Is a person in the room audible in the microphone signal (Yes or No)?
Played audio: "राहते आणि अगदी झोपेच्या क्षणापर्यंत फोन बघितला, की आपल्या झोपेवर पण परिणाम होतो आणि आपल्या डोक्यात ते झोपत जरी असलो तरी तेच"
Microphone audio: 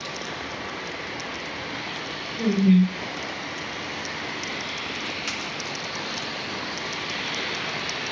Yes